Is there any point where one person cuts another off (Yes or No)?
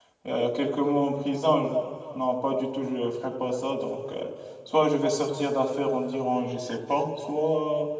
No